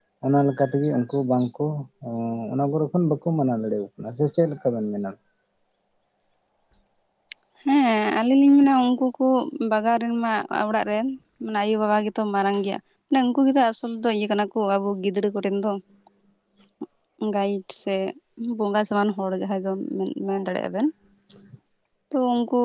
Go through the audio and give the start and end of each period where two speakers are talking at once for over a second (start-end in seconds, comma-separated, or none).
none